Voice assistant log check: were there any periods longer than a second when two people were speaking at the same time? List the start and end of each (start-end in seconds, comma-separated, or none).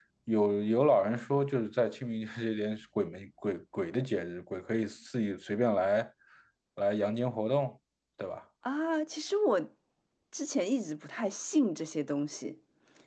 none